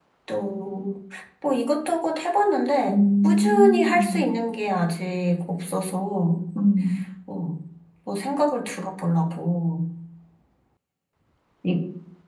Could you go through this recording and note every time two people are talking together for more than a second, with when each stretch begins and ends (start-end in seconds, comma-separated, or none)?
2.9-4.3